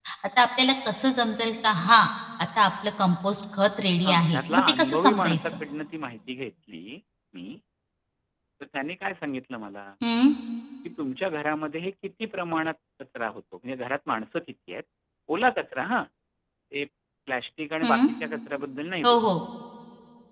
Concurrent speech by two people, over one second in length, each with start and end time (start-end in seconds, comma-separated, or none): 4.0-5.5